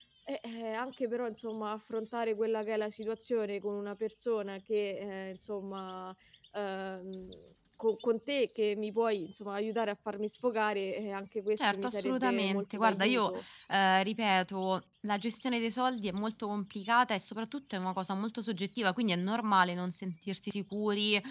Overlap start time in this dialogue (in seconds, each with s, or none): 11.6 s